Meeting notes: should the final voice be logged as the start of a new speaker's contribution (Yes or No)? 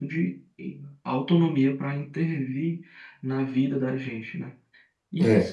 No